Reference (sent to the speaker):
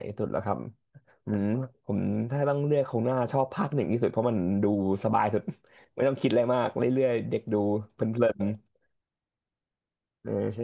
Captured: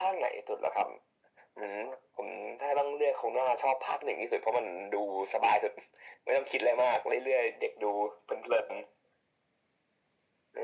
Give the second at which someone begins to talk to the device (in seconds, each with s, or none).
none